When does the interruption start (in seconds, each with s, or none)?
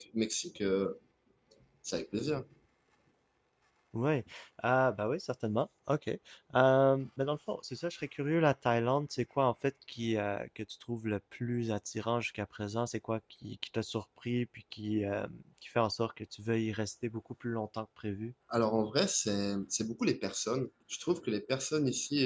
none